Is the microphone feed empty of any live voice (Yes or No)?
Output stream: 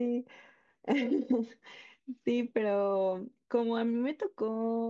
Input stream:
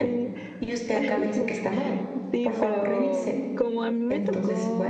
No